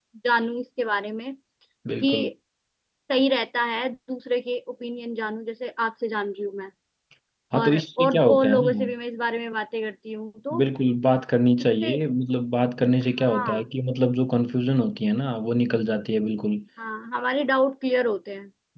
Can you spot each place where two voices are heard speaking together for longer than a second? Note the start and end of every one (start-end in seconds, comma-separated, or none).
7.6-8.8